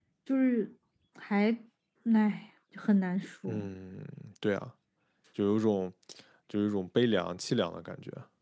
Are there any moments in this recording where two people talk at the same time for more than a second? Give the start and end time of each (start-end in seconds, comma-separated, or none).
none